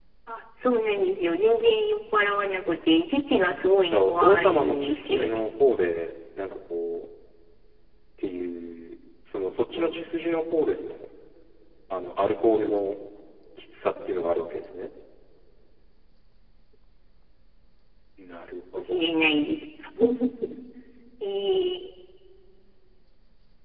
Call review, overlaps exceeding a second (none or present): present